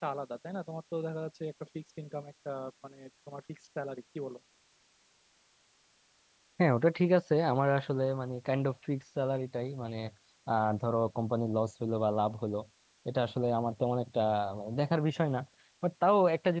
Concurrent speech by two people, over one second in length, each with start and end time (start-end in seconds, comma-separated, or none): none